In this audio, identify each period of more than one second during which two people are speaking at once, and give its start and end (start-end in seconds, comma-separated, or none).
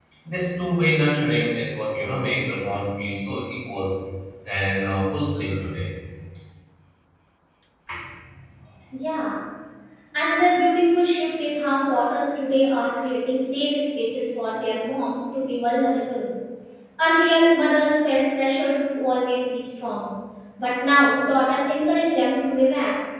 none